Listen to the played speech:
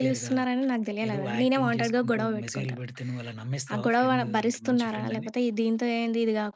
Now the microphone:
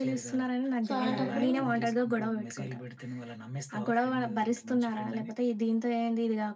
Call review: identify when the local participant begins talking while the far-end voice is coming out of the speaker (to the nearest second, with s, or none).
1 s